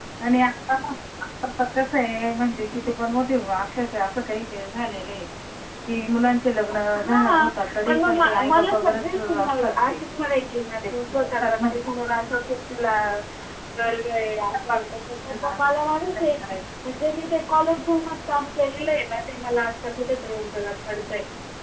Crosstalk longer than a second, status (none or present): present